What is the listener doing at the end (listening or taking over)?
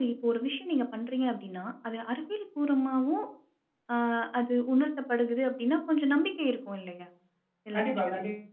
taking over